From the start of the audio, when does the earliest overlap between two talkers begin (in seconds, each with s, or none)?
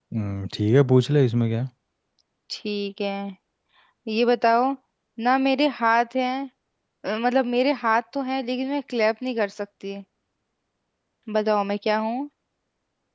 none